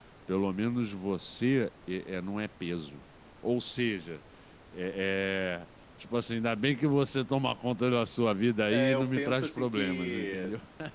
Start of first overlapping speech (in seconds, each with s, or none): 8.7 s